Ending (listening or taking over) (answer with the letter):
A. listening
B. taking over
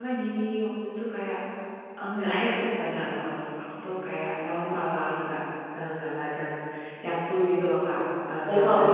B